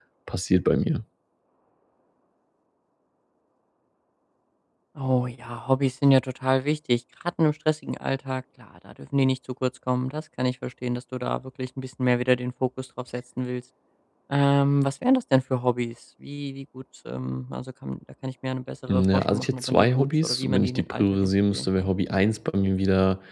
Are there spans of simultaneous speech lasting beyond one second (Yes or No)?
Yes